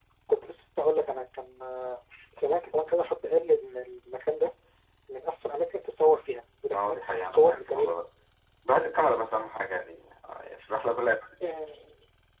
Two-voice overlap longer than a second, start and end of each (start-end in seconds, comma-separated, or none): 6.7-7.9